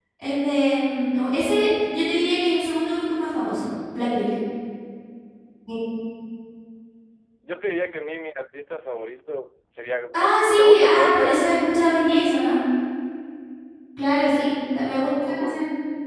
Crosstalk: present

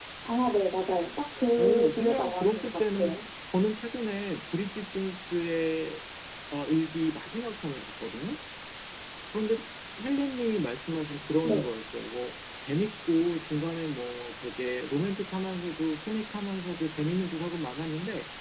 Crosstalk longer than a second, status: present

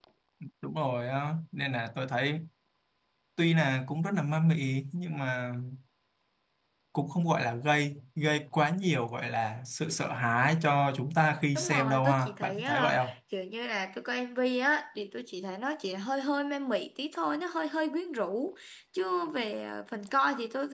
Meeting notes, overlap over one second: present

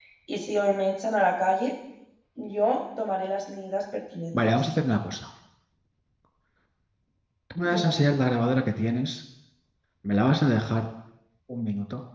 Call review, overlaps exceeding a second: none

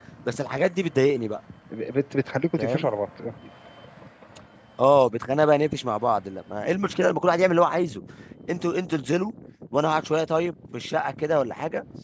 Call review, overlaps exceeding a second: none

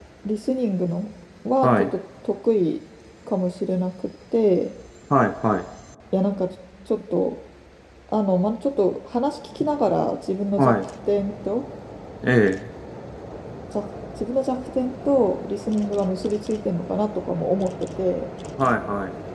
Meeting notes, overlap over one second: none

